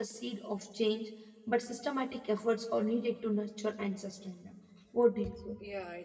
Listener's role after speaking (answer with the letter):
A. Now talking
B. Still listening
A